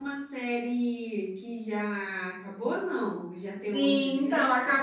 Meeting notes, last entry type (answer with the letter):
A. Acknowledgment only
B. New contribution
B